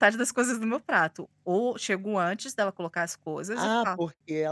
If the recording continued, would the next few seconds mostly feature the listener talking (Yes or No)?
Yes